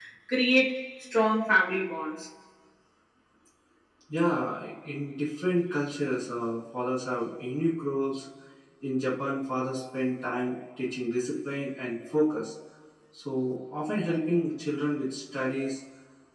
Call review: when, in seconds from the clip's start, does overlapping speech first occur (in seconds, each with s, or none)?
none